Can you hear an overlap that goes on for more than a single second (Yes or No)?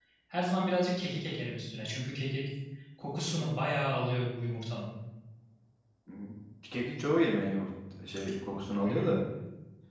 No